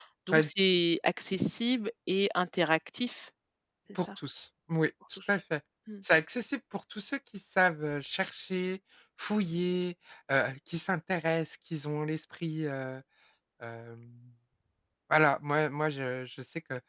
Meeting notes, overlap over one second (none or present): none